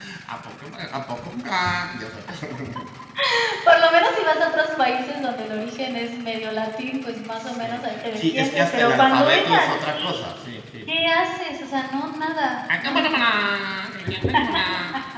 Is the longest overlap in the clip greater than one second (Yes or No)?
Yes